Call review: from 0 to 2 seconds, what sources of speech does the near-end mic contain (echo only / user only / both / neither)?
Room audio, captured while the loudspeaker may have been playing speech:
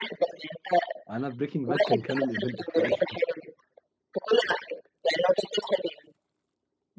both